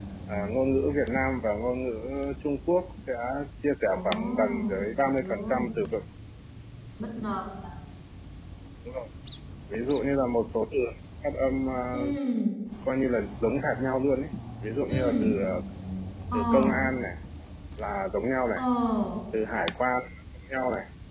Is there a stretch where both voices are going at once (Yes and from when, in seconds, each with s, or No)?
Yes, from 4.0 s